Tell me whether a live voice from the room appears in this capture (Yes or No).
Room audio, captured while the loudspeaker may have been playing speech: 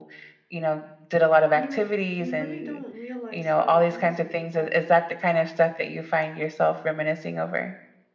Yes